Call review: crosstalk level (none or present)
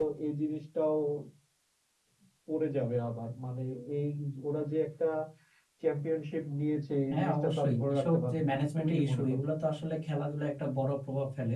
present